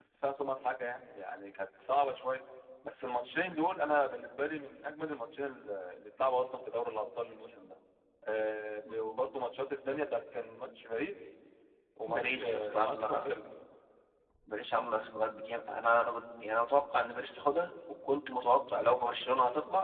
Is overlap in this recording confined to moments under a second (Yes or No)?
No